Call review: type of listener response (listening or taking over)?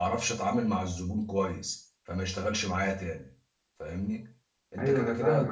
taking over